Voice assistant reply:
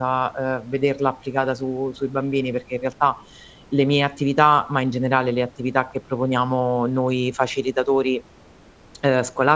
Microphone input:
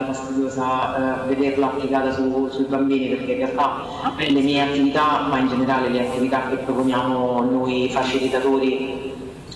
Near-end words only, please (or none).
ma pensa.